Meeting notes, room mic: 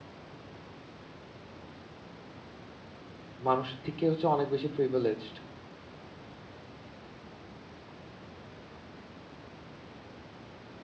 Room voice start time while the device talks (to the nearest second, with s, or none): 3 s